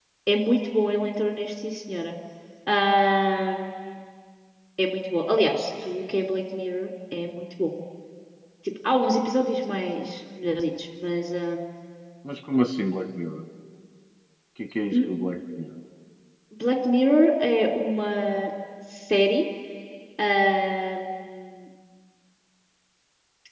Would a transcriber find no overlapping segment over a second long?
Yes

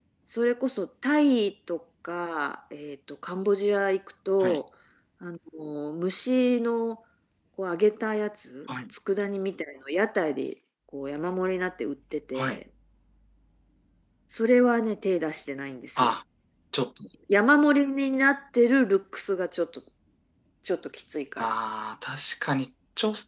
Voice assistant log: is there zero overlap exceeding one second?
Yes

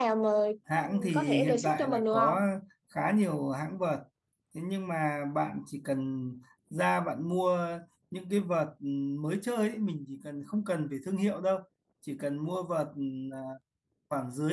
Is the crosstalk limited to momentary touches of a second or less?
No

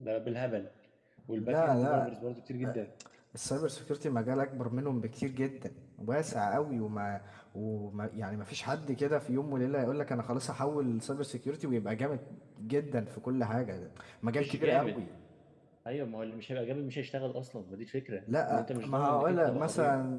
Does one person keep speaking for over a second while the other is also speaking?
Yes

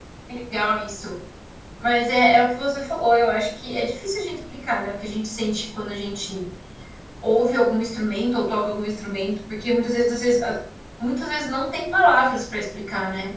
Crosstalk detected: No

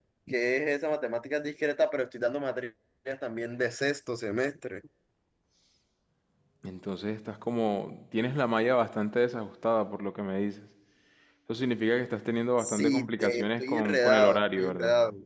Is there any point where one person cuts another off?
Yes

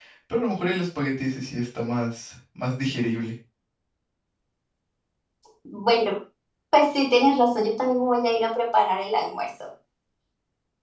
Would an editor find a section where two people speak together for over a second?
No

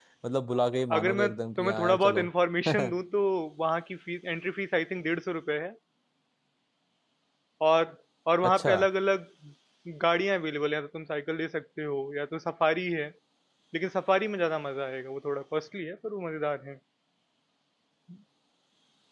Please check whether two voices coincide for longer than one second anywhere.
Yes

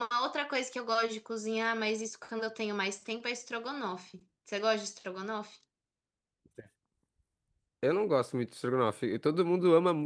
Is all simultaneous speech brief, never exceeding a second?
Yes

